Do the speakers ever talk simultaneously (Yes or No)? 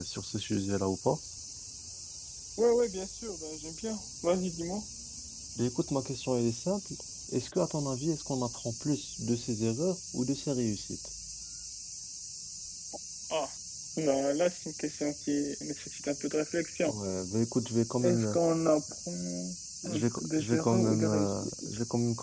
Yes